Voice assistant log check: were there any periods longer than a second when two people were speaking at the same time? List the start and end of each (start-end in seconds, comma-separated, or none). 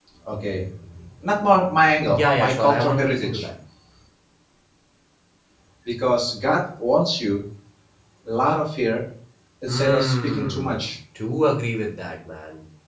2.2-3.5, 9.7-10.9